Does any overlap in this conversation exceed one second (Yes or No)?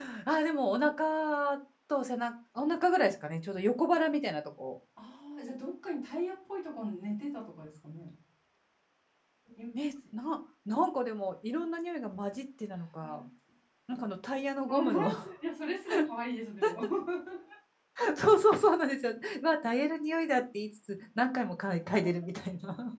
No